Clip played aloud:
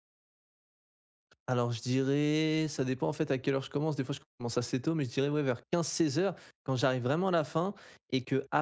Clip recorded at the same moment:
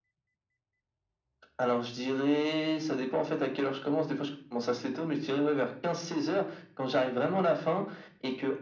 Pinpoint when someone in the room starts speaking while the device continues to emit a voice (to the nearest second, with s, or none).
none